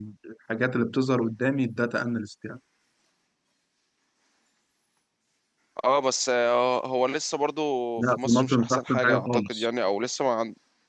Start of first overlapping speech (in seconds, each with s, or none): 8.0 s